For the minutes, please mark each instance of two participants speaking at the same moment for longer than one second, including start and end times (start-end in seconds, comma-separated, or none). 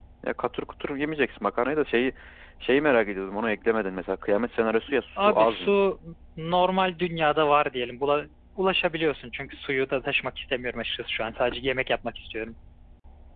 none